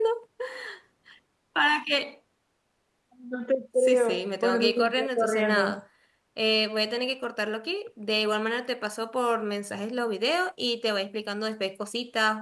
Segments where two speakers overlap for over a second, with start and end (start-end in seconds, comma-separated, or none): 3.8-5.8